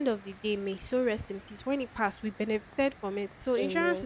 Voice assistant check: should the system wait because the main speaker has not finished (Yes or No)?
Yes